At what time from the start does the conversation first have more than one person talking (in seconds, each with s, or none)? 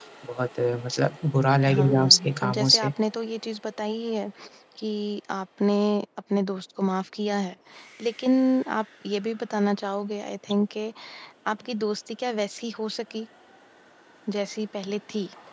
1.7 s